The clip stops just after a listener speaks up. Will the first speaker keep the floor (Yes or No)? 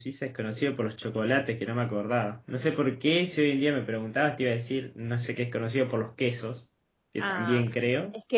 No